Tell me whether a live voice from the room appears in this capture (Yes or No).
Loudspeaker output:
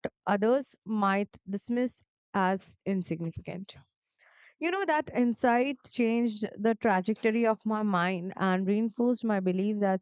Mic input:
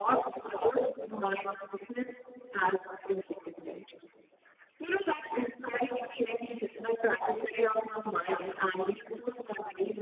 No